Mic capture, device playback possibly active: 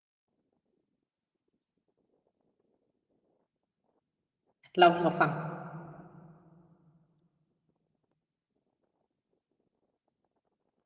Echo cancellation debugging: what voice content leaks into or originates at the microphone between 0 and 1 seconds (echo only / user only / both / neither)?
neither